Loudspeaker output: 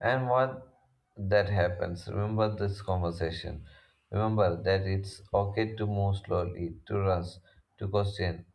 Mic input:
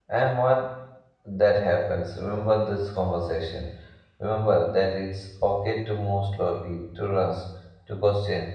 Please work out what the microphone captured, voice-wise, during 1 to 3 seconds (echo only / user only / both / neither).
echo only